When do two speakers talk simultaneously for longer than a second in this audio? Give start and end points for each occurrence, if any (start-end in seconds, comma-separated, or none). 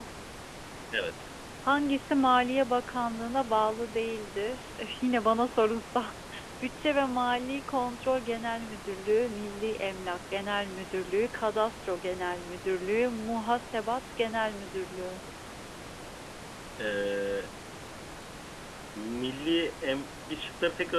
none